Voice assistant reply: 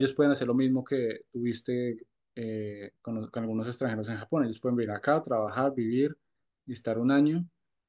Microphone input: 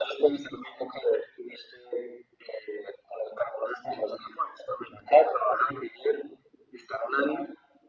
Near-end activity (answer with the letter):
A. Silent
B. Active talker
A